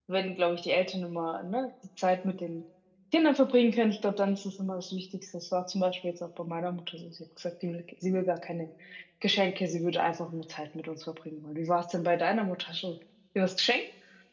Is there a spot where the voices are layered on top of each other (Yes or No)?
No